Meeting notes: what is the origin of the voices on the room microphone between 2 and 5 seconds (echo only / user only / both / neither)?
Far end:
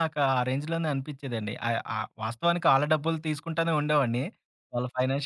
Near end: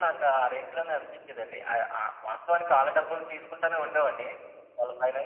echo only